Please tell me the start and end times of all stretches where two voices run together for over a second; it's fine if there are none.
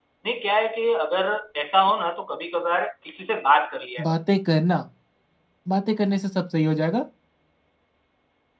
none

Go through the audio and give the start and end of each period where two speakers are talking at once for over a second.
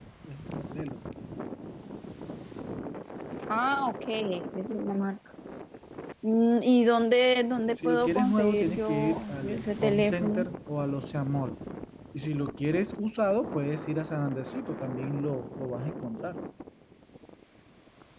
7.8-10.5

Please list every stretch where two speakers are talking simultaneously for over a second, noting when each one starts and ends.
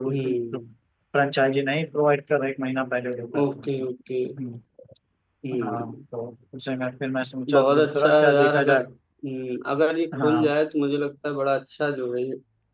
7.5-8.8

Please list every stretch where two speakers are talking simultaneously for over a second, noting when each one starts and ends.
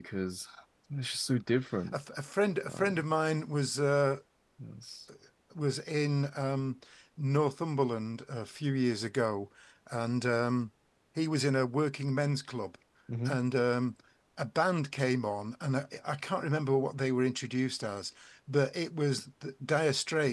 none

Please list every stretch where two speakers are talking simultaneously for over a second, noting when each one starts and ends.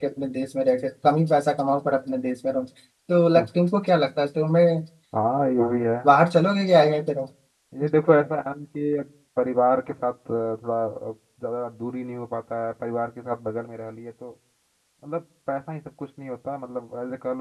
none

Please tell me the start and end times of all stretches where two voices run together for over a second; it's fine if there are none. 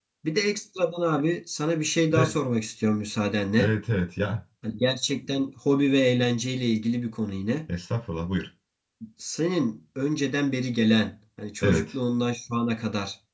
none

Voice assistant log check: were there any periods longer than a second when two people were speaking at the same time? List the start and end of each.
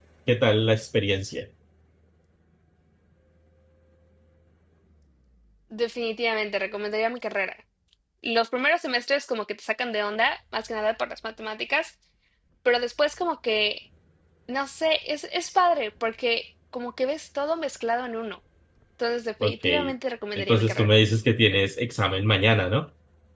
none

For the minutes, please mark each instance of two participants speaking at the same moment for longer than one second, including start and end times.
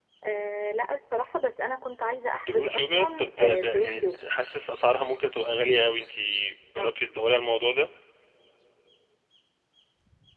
2.4-4.3

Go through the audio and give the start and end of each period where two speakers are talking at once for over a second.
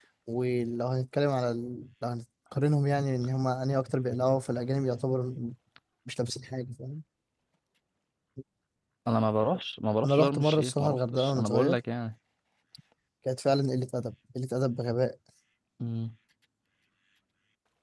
10.0-11.8

